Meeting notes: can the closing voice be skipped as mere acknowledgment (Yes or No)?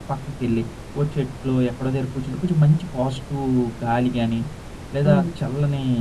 Yes